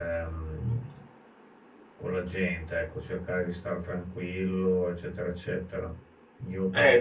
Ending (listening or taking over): taking over